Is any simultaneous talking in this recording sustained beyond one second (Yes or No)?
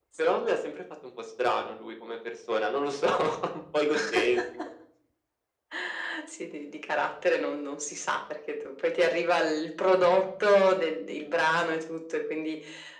No